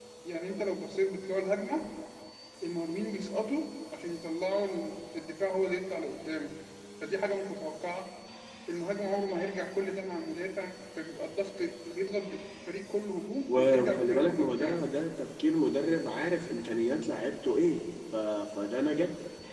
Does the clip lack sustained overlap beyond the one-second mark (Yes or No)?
No